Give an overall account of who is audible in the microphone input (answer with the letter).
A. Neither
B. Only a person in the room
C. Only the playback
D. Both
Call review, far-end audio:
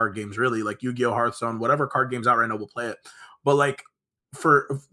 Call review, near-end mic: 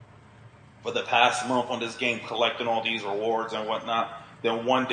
B